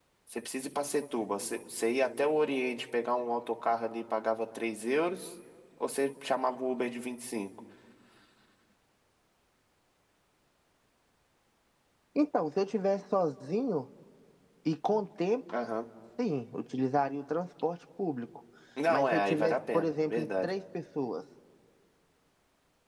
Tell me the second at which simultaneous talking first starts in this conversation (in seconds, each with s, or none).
18.9 s